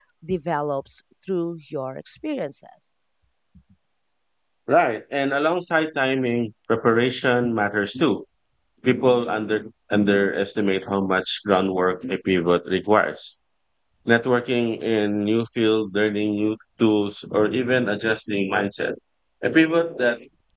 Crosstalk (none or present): none